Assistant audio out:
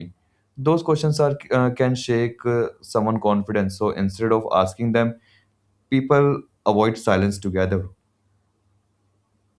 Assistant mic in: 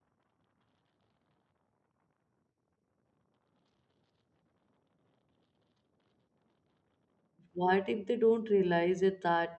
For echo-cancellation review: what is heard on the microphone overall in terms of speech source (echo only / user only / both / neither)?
user only